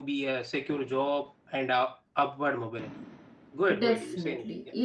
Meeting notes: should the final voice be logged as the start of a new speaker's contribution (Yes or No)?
Yes